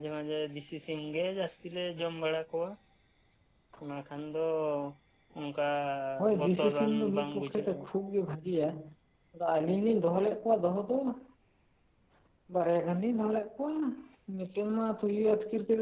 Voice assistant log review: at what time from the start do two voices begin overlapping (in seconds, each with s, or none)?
6.4 s